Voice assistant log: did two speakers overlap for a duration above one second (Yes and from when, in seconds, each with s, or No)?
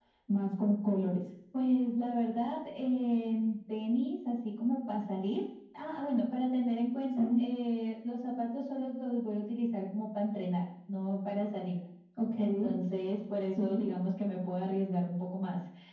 No